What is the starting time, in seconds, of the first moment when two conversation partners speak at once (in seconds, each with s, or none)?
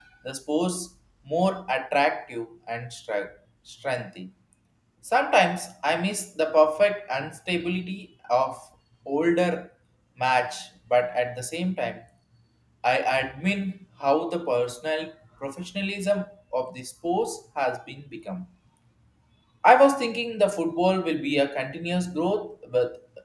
none